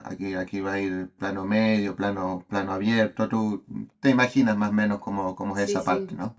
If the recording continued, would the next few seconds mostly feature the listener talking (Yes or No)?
Yes